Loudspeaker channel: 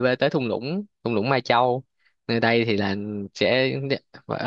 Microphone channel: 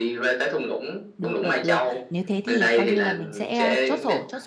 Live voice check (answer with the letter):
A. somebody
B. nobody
A